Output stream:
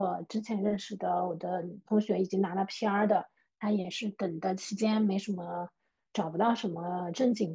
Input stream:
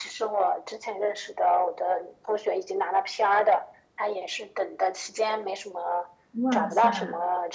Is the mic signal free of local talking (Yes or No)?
No